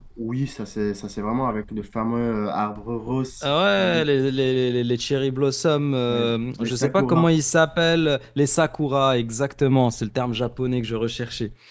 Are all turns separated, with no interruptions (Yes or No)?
No